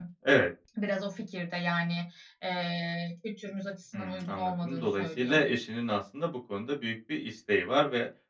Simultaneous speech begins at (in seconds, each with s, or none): 3.9 s